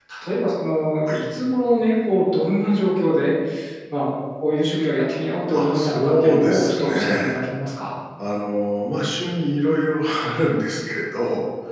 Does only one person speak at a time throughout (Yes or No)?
No